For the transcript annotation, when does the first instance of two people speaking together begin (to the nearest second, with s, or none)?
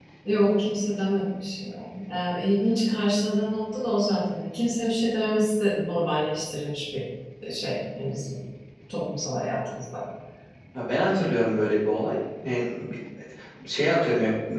none